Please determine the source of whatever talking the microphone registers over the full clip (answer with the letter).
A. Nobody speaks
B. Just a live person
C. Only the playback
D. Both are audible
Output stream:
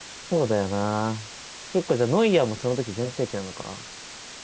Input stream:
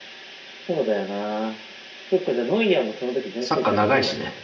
D